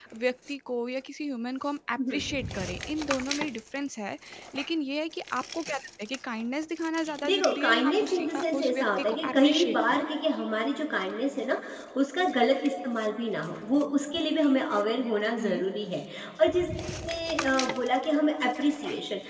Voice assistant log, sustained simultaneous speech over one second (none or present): present